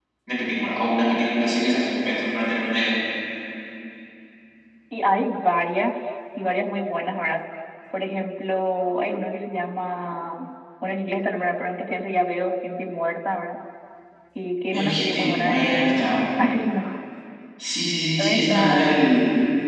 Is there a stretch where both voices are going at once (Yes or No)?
Yes